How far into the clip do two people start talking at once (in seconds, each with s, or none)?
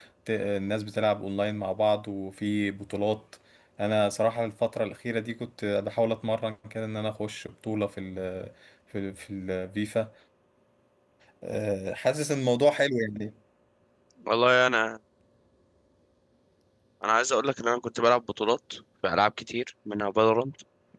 none